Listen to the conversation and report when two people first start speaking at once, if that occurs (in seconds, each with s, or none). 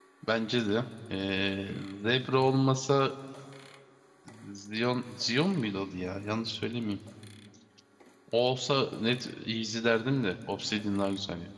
none